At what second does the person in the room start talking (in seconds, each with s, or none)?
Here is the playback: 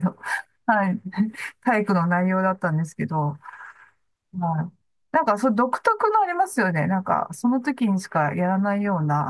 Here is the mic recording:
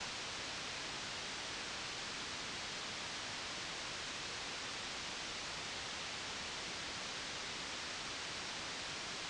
none